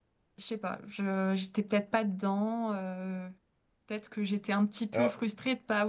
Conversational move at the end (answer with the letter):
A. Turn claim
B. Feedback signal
B